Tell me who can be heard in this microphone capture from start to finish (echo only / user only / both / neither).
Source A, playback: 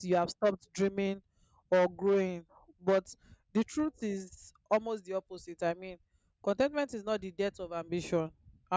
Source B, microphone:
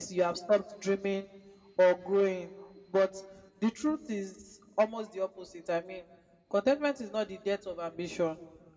echo only